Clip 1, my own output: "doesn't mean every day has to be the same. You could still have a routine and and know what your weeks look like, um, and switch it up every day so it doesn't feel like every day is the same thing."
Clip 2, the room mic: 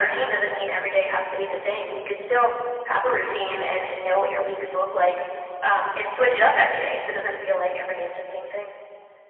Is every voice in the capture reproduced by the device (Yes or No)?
Yes